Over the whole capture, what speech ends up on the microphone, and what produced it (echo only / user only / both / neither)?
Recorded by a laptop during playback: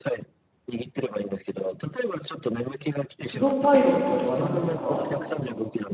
both